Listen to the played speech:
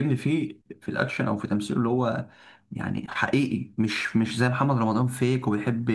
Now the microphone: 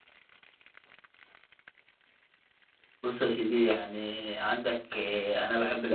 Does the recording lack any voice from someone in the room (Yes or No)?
No